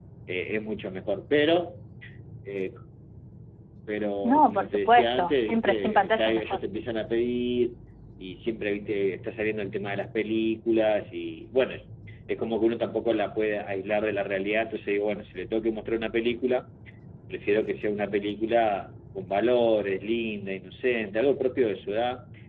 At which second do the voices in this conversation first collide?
4.2 s

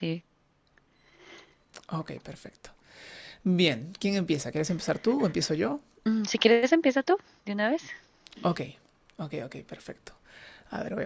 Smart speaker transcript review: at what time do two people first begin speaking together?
none

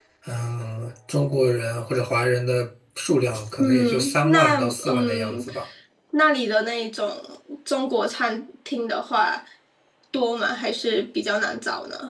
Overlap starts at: 3.6 s

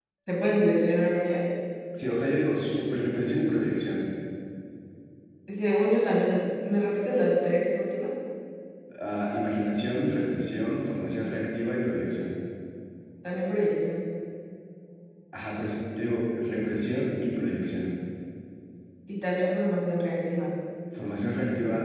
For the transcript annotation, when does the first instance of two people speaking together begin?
none

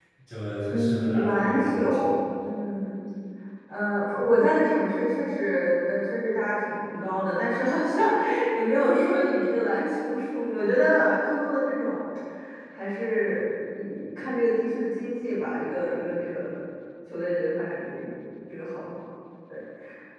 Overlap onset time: 0.7 s

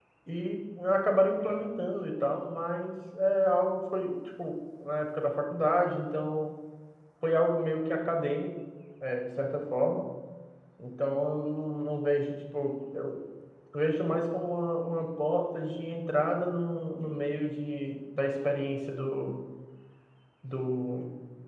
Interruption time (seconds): none

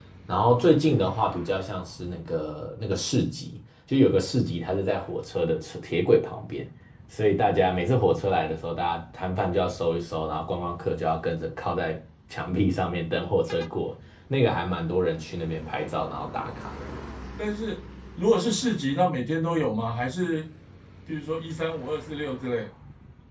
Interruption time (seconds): none

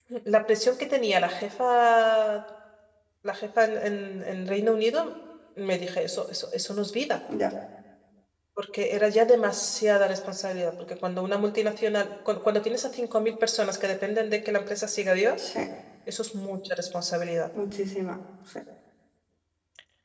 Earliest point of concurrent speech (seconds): none

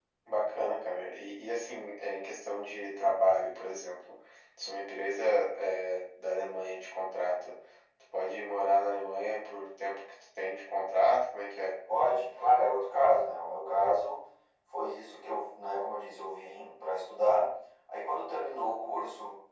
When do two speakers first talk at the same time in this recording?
none

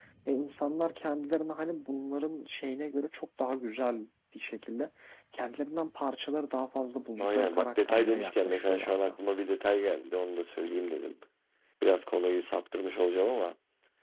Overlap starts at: 7.2 s

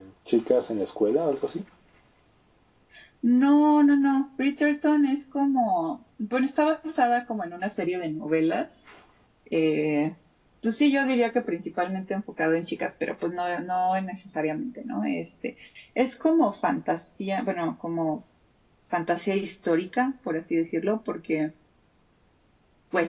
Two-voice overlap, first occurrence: none

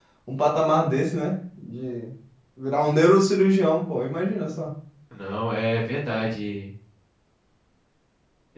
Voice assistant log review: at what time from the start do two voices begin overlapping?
none

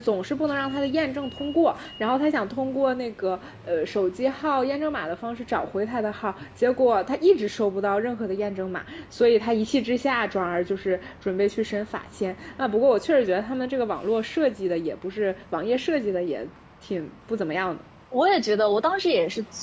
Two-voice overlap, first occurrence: none

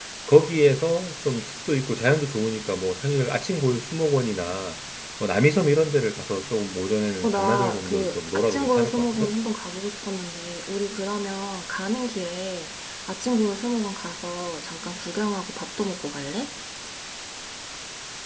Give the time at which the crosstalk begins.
7.2 s

